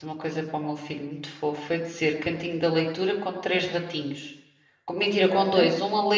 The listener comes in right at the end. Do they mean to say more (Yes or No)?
No